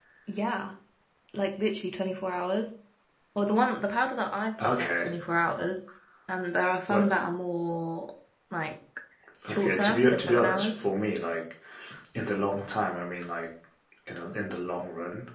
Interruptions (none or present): present